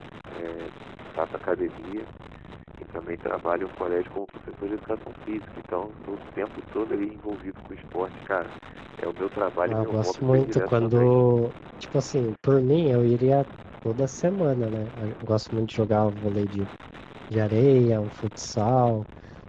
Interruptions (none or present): present